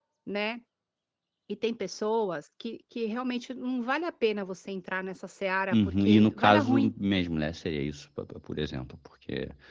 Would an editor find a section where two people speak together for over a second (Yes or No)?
Yes